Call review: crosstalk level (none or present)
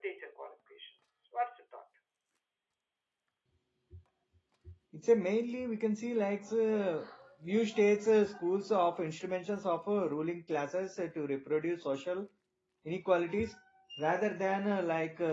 none